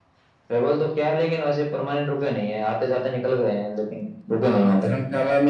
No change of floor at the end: No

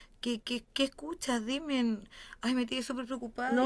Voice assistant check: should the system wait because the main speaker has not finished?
No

